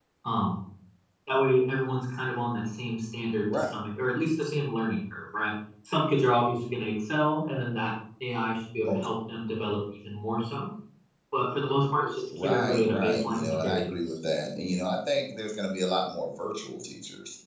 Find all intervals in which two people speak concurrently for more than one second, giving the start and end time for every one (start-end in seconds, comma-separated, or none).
12.4-13.9